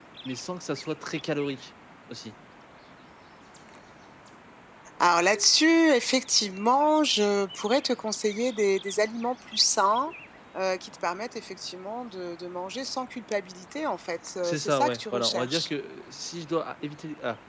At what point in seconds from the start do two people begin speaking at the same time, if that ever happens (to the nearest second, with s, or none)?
14 s